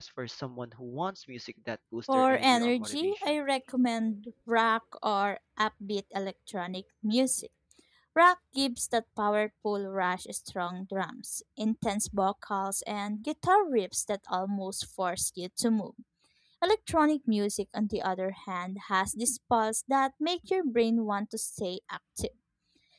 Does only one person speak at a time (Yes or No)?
No